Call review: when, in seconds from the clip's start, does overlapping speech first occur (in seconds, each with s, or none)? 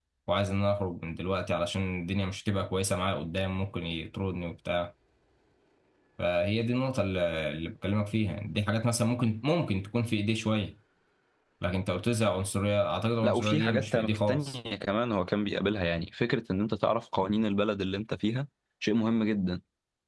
13.2 s